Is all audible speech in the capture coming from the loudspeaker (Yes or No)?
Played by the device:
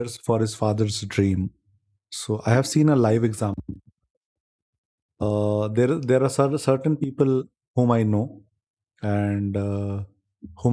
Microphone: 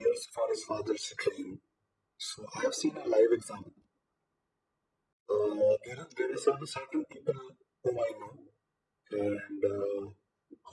Yes